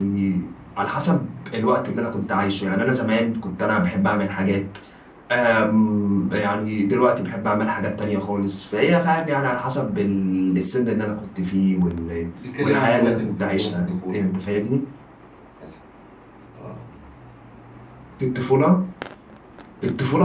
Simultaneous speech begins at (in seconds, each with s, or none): 12.6 s